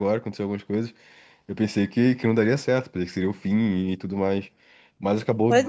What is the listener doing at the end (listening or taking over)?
taking over